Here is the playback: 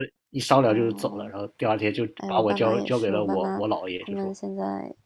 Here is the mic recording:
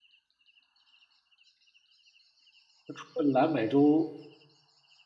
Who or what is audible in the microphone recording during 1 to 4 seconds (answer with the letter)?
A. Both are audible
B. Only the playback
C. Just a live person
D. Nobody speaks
C